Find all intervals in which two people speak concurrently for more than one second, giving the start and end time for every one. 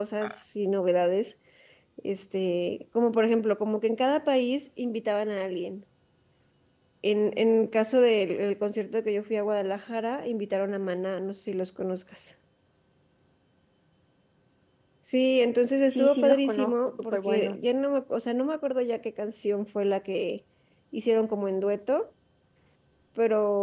15.9-17.6

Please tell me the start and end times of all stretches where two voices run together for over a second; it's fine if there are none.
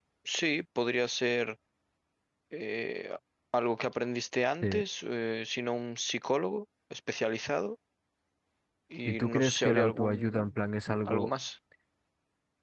9.1-10.5

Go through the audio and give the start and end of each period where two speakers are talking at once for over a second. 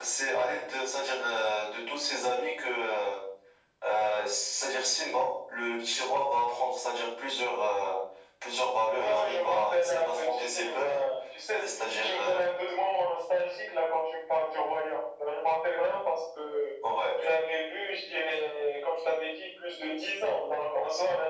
8.9-11.0

